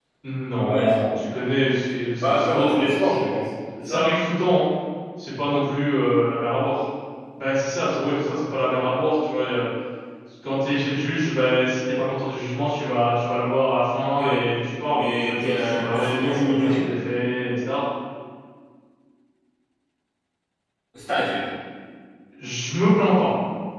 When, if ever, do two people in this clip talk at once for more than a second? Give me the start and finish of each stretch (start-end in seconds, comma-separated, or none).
2.2-3.4, 14.9-16.8